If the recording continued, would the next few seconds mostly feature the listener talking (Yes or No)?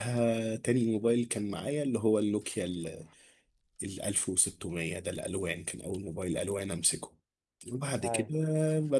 No